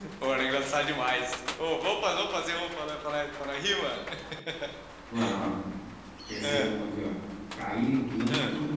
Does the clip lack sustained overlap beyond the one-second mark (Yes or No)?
Yes